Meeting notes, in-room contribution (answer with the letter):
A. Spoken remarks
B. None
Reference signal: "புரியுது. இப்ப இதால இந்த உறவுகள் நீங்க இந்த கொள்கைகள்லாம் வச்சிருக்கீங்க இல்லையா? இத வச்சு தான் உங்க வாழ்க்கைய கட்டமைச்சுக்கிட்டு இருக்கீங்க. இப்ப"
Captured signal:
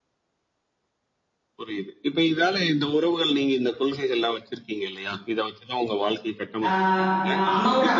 A